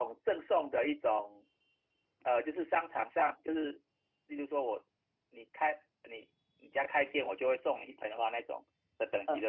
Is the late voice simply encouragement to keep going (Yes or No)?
No